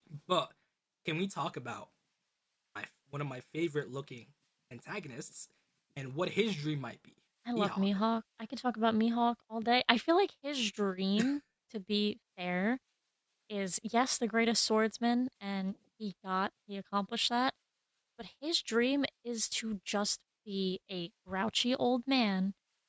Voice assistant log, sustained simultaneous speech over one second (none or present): none